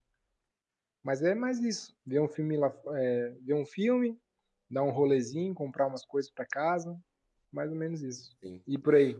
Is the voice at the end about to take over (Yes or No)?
Yes